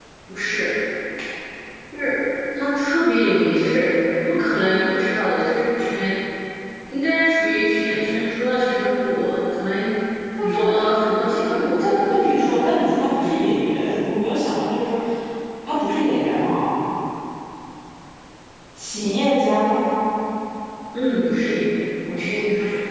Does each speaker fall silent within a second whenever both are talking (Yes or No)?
No